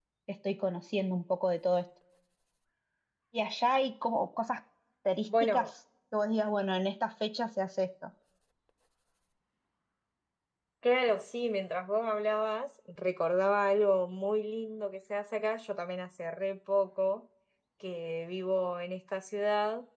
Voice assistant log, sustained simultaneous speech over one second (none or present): none